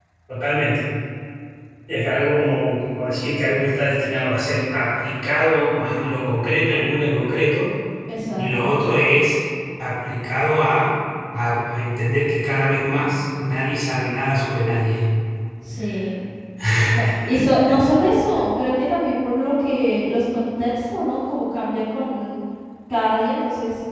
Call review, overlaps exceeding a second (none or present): none